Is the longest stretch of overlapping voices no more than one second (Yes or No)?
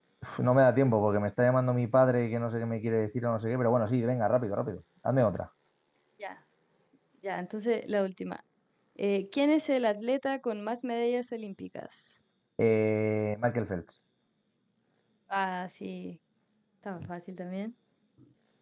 Yes